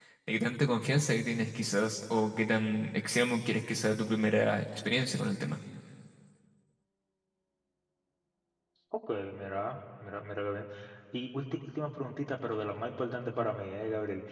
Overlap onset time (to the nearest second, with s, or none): none